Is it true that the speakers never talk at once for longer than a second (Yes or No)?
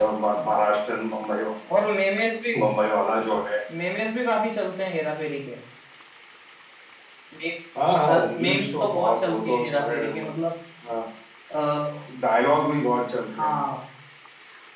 No